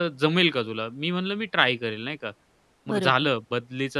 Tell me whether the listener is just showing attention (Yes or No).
Yes